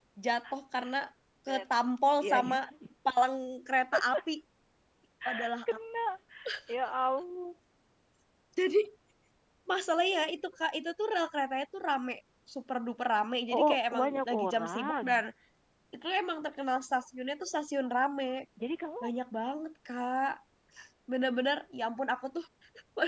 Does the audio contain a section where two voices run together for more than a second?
Yes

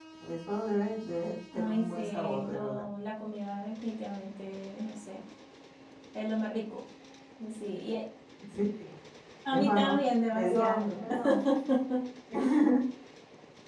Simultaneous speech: Yes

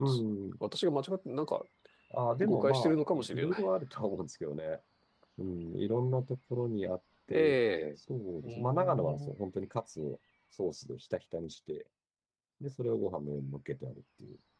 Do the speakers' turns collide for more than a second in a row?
Yes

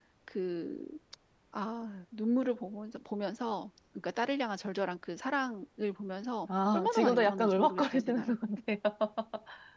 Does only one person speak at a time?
No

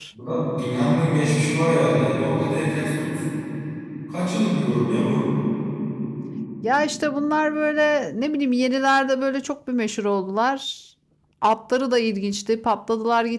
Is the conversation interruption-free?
Yes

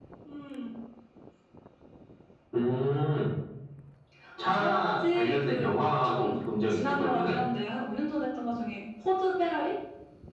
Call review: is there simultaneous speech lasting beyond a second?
Yes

